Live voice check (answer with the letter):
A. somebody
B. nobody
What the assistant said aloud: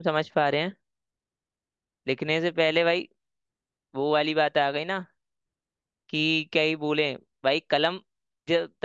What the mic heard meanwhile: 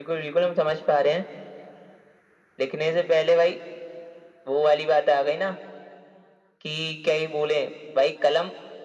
B